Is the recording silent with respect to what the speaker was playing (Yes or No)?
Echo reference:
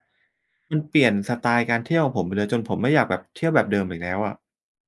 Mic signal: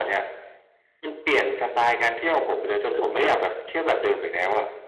No